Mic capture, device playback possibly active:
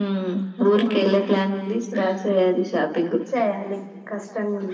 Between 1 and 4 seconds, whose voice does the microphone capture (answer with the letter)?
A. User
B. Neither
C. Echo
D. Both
C